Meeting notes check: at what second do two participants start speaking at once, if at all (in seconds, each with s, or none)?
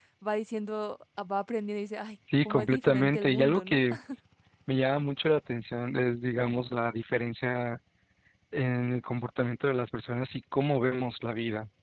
2.3 s